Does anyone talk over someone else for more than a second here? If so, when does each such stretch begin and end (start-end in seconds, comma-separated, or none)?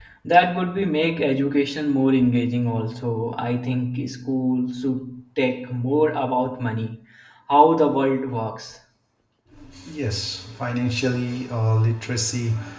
none